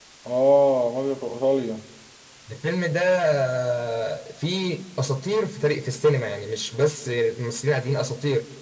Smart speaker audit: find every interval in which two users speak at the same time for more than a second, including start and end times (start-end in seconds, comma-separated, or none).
none